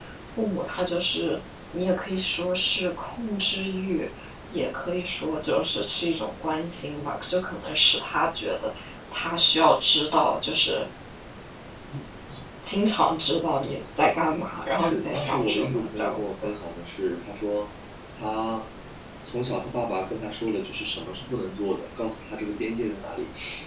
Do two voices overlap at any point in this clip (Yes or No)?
Yes